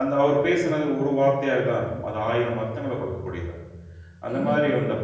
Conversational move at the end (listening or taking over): taking over